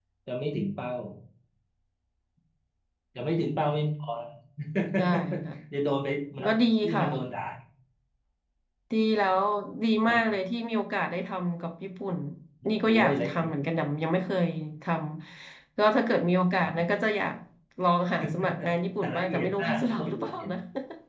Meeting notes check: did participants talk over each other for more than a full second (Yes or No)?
Yes